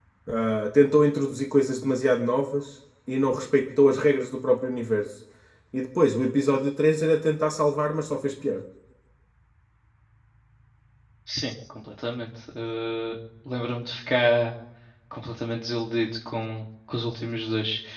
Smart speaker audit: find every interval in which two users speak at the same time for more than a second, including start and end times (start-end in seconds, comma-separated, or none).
none